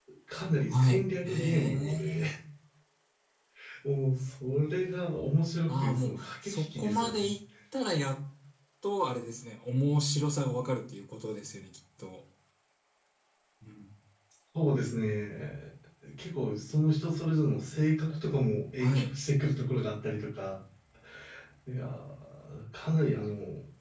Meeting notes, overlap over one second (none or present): present